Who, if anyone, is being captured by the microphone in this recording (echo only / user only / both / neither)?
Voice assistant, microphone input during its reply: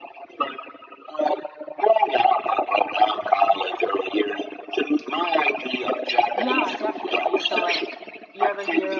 both